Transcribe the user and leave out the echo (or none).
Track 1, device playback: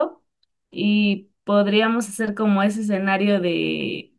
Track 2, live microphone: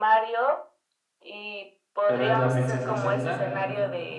pero es la princesa Zelda.